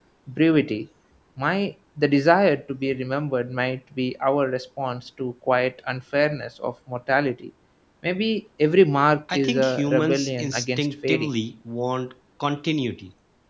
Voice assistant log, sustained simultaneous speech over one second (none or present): present